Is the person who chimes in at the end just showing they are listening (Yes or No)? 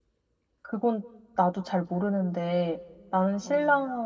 Yes